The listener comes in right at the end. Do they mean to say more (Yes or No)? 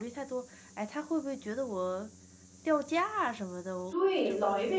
Yes